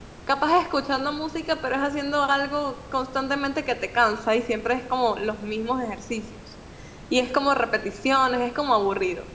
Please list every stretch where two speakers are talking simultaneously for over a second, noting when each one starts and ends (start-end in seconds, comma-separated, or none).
none